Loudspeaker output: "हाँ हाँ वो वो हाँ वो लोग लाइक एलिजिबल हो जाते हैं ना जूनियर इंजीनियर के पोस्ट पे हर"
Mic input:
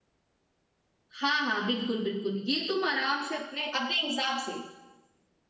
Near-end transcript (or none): हाँ हाँ बिल्कुल बिल्कुल ये तुम आराम से अपने अपने हिसाब से